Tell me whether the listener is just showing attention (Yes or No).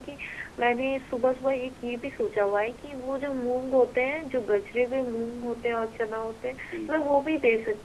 Yes